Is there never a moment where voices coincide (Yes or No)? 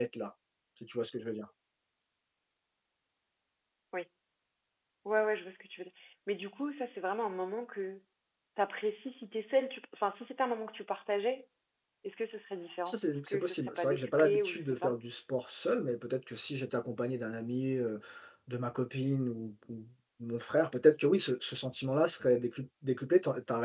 No